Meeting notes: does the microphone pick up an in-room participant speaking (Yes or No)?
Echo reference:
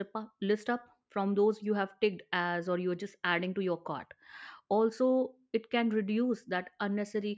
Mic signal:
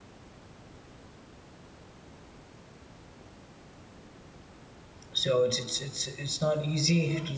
Yes